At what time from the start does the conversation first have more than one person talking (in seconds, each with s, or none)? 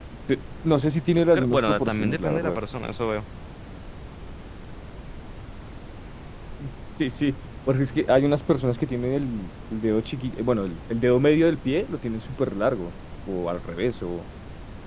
1.3 s